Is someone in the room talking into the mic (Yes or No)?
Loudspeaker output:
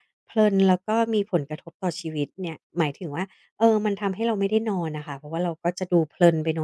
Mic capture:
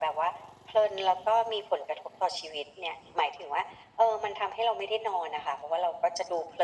No